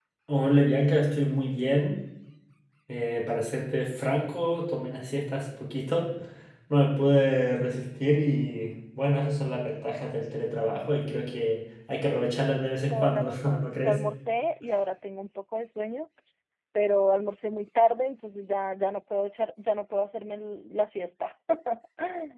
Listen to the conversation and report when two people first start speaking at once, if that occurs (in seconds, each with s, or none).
12.1 s